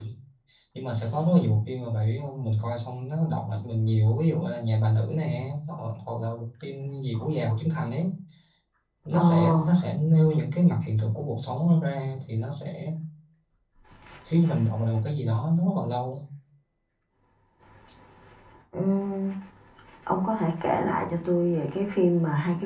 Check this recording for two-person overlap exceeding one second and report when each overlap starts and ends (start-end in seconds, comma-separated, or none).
none